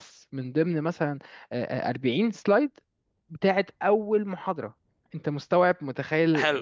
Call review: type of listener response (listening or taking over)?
taking over